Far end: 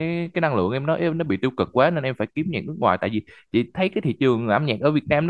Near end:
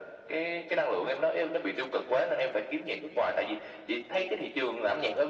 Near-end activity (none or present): none